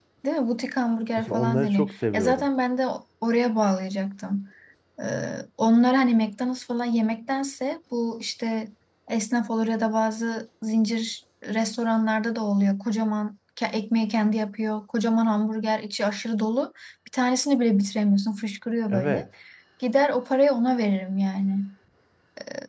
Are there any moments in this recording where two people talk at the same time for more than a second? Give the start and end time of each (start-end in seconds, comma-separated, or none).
1.2-2.5